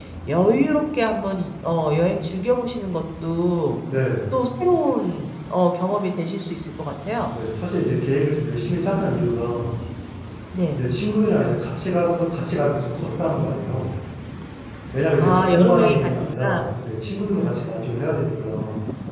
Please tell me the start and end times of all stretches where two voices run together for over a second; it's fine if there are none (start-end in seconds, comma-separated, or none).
15.2-16.6